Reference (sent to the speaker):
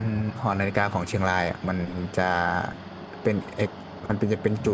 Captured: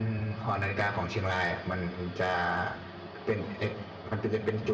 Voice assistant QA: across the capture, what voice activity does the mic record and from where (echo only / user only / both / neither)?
echo only